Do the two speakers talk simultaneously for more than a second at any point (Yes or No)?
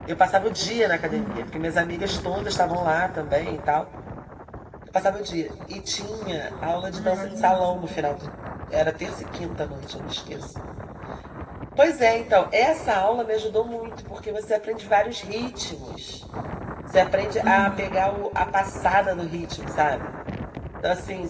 Yes